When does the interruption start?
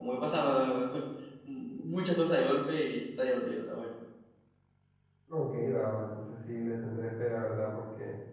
none

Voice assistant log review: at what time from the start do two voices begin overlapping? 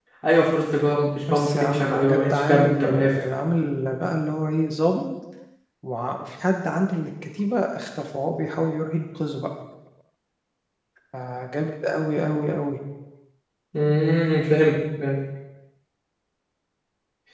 1.3 s

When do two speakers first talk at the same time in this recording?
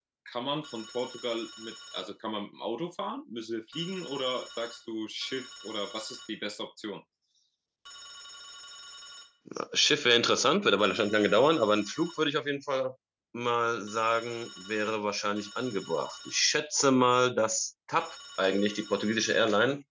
none

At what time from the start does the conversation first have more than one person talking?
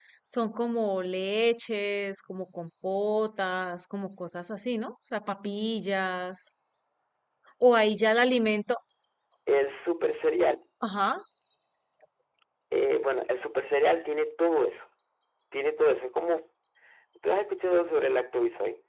none

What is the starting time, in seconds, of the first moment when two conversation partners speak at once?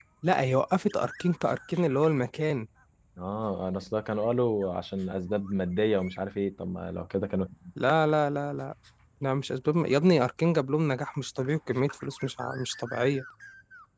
none

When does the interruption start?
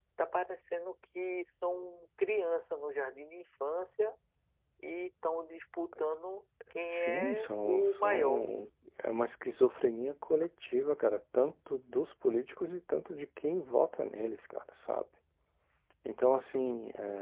6.9 s

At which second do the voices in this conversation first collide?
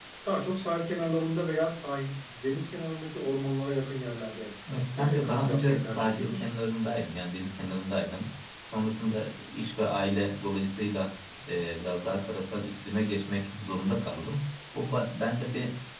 5.0 s

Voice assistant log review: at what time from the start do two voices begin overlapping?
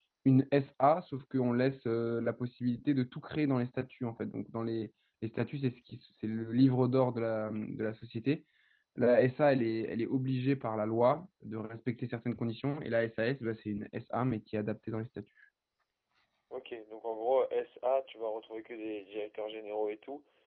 none

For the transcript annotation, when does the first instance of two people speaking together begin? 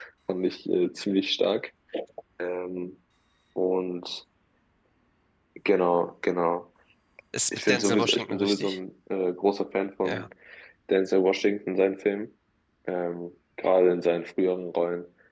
7.5 s

